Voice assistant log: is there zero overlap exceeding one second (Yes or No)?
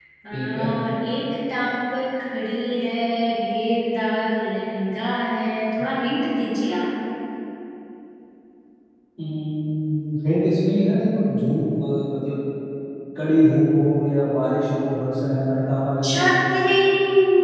Yes